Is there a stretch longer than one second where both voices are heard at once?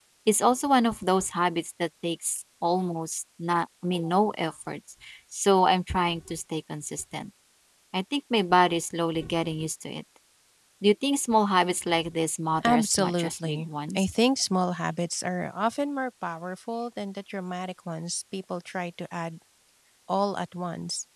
Yes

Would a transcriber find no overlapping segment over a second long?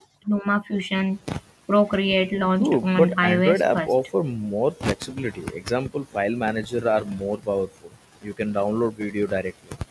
No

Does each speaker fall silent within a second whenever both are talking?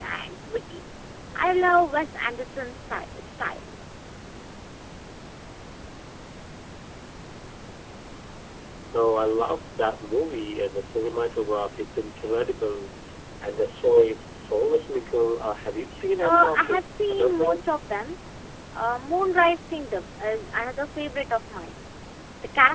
No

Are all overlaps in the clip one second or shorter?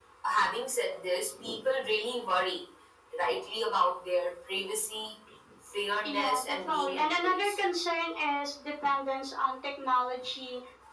No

